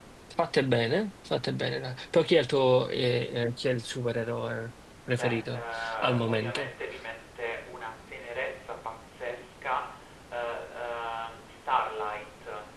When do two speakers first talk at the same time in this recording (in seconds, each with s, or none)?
5.1 s